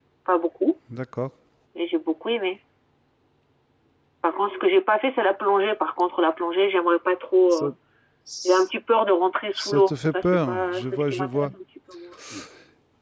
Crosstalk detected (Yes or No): Yes